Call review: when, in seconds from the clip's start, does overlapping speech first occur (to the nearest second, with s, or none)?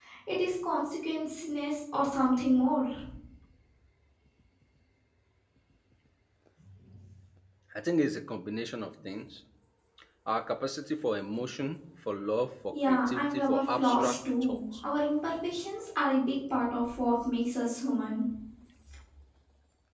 13 s